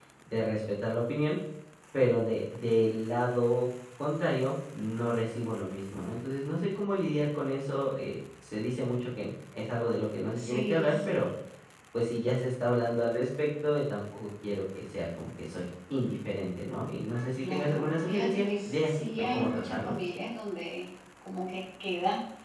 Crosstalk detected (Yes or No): Yes